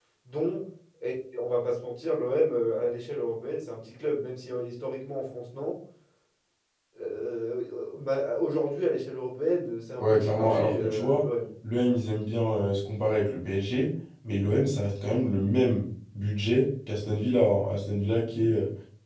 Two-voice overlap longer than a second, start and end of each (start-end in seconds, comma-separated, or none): 10.0-11.2